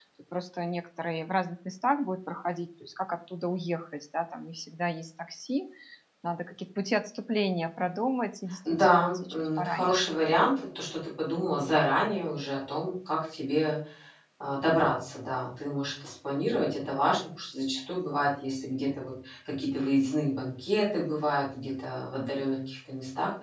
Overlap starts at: 8.7 s

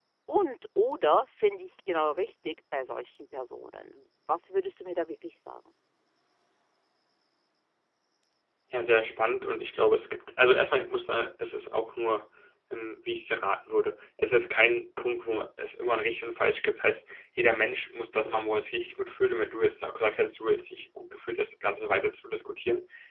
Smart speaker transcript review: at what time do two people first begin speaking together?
none

